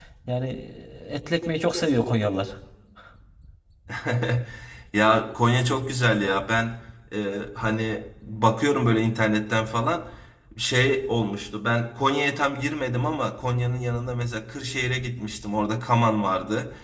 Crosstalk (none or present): none